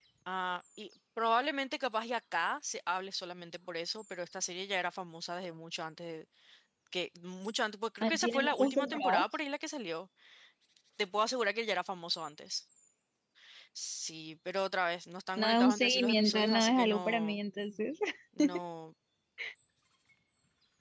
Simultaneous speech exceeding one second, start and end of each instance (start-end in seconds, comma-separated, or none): 8.0-9.2, 15.4-17.4